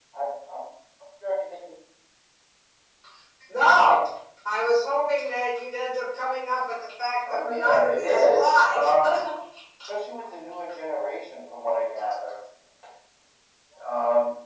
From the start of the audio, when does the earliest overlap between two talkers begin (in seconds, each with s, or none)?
7.2 s